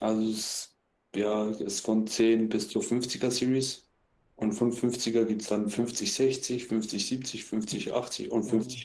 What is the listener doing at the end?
listening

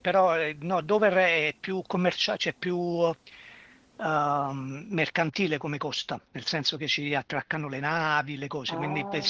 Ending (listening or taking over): taking over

